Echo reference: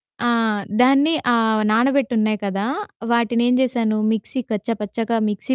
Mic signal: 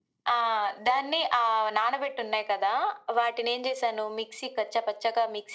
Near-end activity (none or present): none